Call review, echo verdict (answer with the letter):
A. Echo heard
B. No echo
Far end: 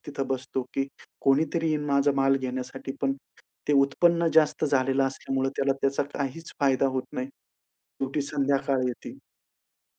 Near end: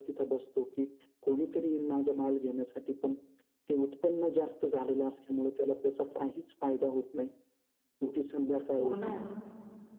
A